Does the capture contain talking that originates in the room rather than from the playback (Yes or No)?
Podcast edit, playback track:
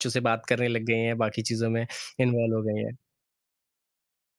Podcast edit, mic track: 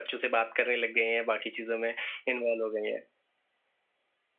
No